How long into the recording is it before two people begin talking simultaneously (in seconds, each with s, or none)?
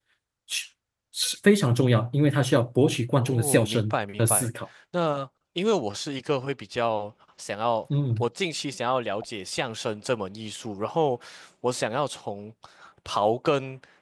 3.2 s